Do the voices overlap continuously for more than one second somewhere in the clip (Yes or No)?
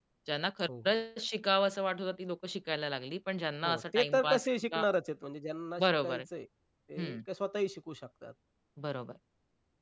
Yes